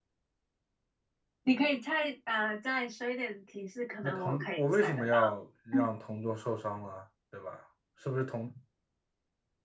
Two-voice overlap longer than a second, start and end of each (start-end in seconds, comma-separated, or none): 4.0-5.3